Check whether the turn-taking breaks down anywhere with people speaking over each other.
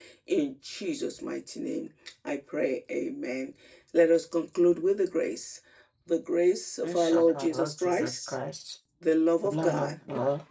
Yes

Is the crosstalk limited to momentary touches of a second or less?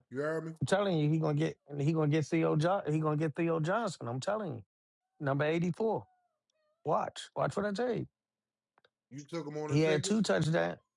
Yes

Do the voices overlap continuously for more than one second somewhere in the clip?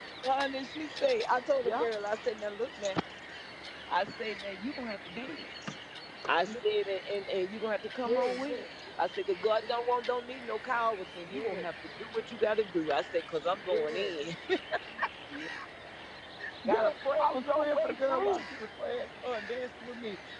Yes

